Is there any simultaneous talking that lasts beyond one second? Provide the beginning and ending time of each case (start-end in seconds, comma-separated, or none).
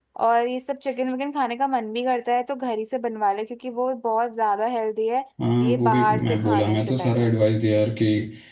5.6-7.3